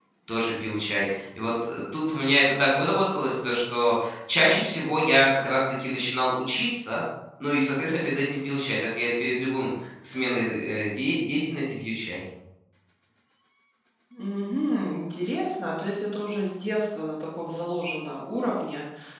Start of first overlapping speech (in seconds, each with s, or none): none